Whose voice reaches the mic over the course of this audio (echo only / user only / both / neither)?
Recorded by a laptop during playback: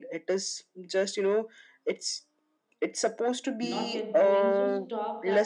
both